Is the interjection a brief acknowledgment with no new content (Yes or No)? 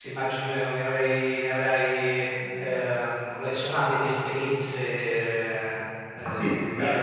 No